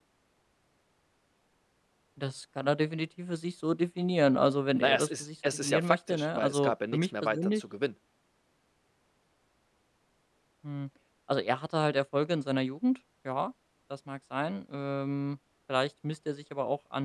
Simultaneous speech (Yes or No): Yes